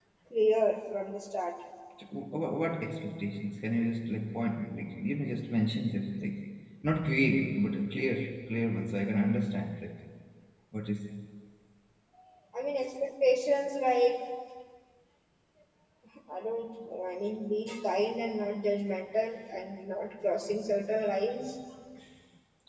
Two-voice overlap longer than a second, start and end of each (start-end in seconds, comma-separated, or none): none